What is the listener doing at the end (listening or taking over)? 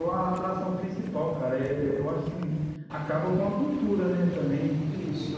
listening